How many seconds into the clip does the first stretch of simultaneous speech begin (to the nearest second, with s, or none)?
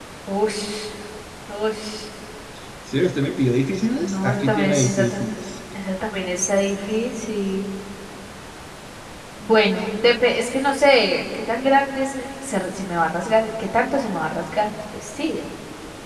4 s